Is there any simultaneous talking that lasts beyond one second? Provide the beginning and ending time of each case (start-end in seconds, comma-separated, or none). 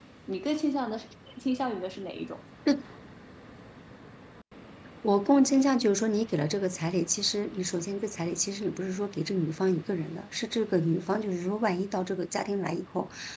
none